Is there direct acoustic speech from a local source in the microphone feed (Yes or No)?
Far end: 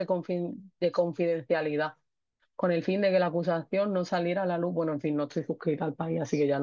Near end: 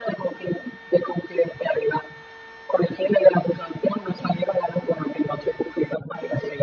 No